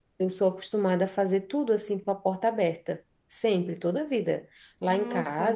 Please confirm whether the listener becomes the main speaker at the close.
No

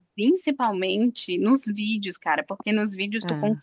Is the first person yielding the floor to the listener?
No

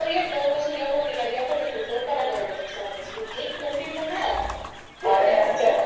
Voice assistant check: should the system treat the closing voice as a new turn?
Yes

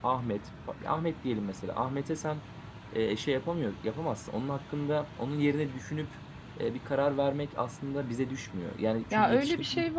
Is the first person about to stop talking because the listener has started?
Yes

